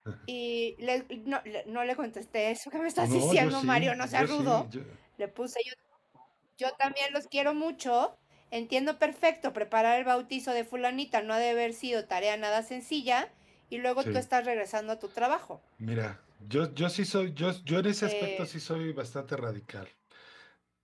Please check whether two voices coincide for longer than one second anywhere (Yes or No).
Yes